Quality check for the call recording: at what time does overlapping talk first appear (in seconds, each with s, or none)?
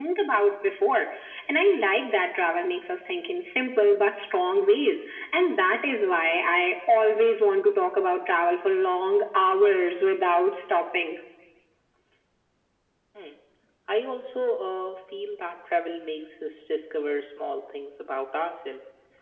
none